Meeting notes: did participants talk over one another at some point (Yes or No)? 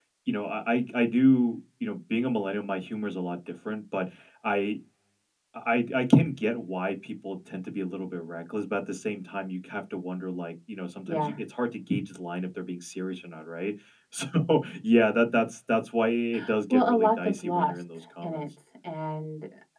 Yes